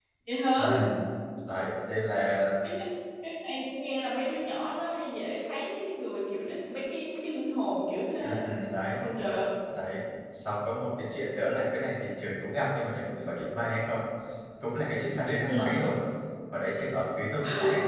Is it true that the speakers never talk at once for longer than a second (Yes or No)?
Yes